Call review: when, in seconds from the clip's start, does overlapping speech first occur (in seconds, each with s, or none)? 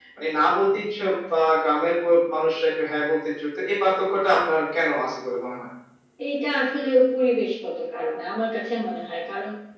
none